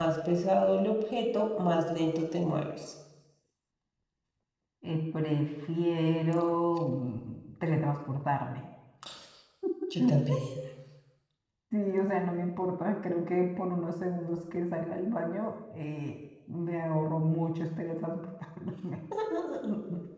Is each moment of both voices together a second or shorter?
Yes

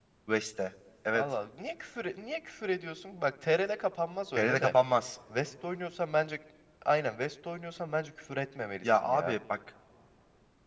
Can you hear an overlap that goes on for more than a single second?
No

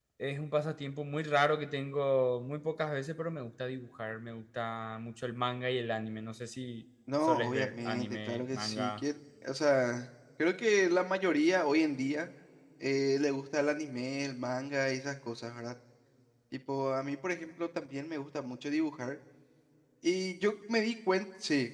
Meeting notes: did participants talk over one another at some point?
Yes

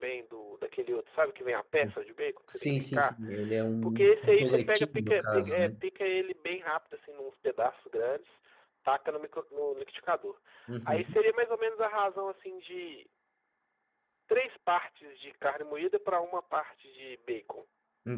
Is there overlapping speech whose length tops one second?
Yes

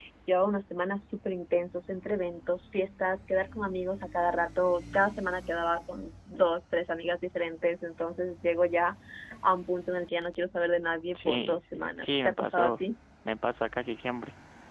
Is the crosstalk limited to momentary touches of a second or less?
No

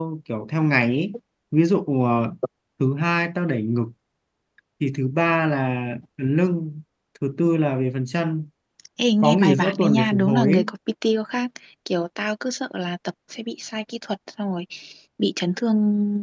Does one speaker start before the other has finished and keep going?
Yes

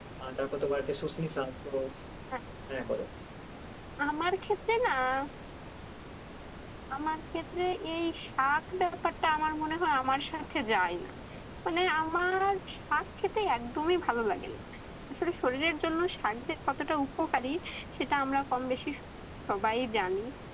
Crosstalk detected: No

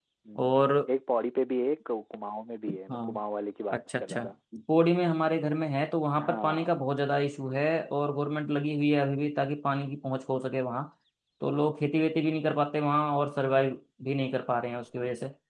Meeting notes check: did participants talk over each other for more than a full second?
No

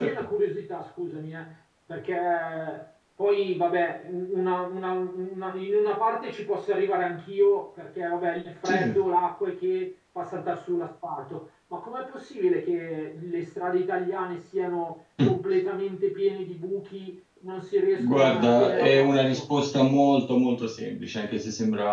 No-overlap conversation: No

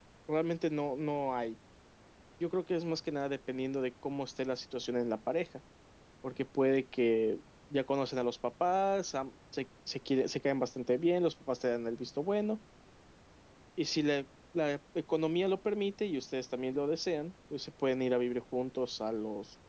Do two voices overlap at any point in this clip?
No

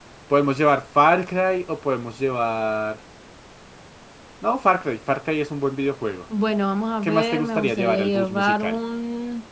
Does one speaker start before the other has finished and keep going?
Yes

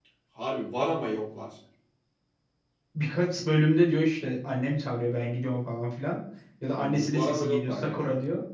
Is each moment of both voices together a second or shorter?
No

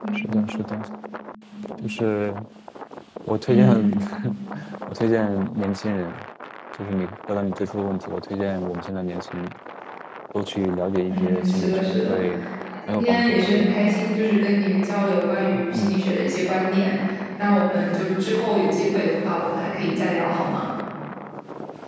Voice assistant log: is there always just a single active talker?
No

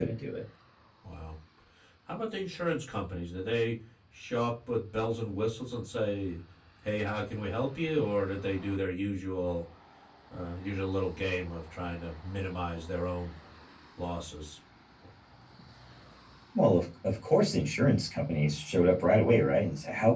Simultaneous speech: No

